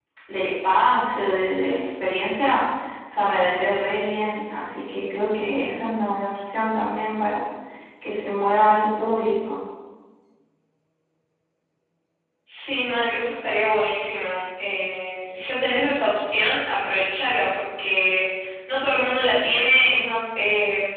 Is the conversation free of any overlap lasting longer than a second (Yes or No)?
Yes